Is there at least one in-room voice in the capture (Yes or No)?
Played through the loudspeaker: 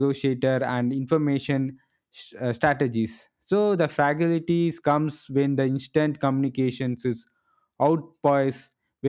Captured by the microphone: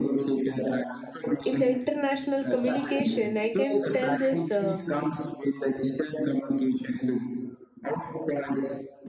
Yes